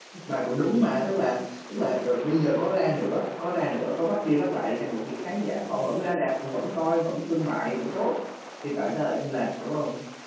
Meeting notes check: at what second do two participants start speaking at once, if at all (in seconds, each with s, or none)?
none